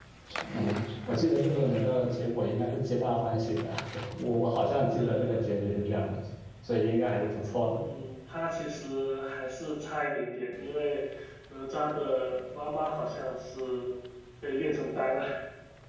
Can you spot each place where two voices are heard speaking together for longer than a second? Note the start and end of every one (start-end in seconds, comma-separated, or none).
none